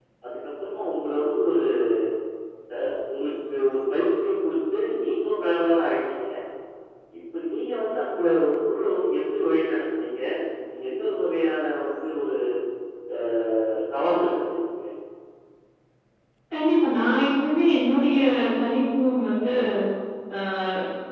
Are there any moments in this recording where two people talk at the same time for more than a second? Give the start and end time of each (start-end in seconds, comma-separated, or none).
none